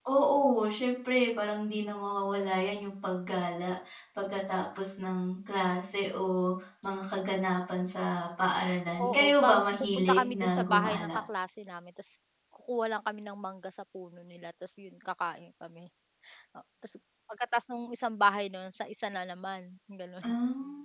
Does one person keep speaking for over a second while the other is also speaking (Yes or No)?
Yes